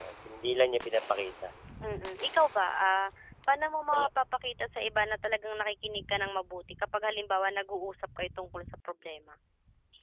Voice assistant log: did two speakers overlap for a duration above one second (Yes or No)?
No